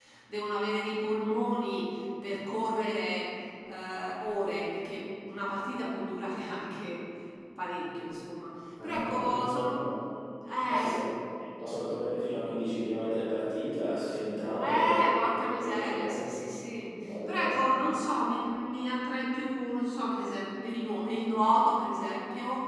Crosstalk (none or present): present